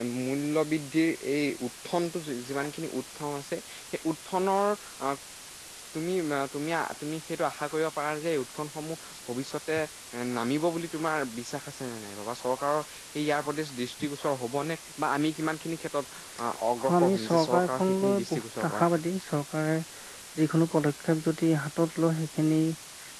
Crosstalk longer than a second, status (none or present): present